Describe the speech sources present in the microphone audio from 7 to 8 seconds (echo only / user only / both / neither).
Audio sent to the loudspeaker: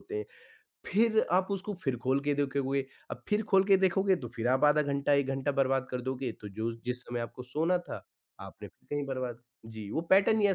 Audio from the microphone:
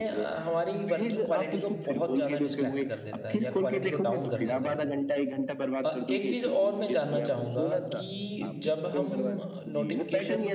both